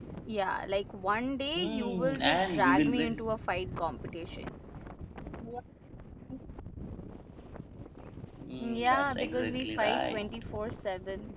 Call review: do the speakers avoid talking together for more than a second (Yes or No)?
No